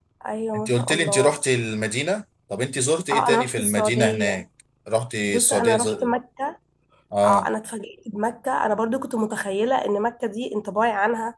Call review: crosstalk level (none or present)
present